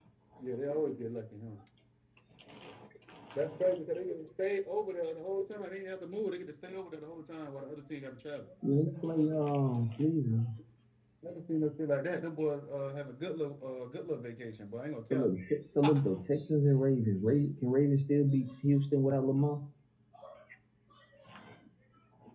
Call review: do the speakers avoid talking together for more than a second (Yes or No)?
Yes